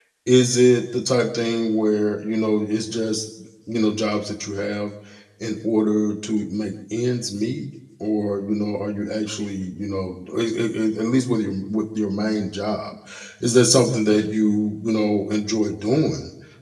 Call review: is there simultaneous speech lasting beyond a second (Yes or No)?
No